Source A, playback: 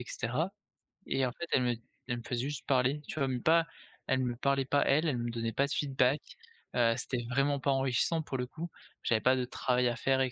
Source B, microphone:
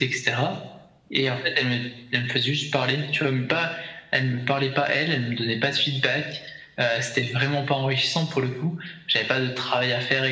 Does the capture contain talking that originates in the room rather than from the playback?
No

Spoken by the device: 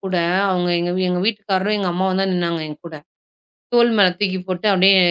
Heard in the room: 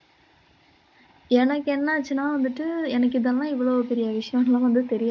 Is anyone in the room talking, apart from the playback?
Yes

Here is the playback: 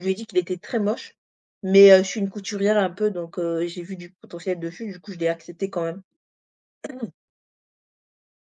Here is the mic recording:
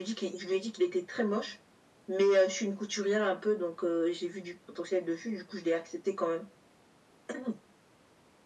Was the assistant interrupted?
No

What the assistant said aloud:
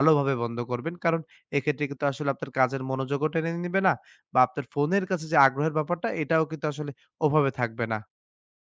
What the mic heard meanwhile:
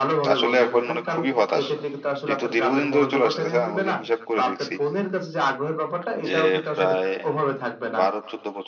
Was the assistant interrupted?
Yes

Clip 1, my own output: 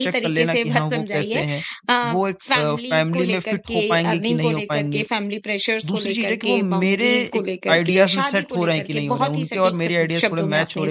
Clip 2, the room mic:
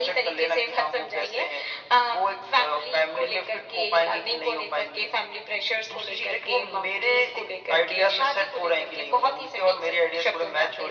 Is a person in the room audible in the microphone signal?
No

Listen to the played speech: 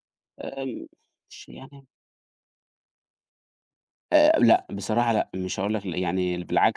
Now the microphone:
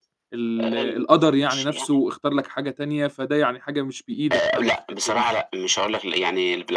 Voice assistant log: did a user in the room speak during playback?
Yes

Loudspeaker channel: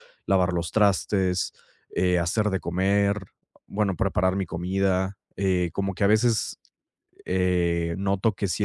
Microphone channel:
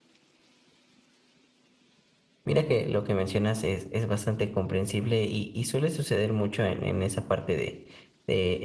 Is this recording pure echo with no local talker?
No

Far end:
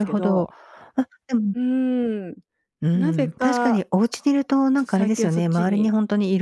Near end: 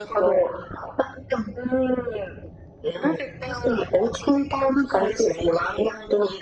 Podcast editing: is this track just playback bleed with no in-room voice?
Yes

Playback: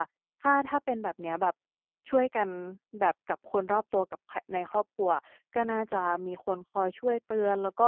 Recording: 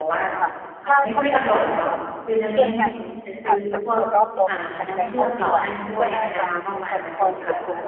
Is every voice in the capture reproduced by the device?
No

